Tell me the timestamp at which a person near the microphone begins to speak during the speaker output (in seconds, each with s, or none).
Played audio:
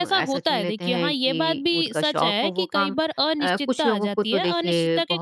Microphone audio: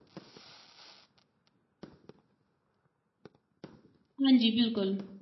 4.2 s